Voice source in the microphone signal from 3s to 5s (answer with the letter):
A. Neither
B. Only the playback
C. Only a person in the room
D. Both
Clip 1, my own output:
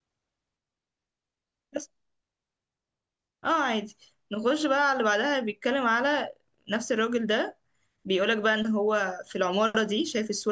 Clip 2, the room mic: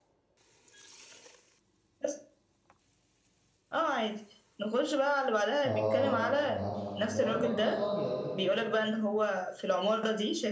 B